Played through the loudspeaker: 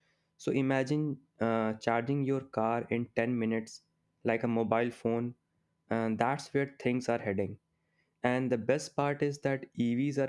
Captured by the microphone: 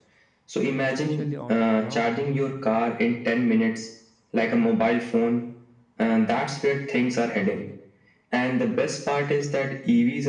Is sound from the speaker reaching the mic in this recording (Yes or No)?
Yes